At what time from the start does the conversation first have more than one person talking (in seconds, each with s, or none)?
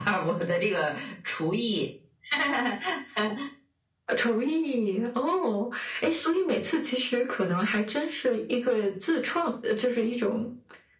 none